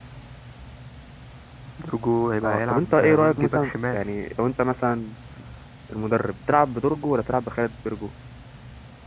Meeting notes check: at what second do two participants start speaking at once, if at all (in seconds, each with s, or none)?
2.4 s